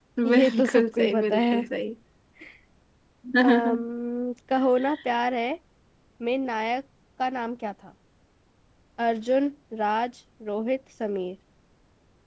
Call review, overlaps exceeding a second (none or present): present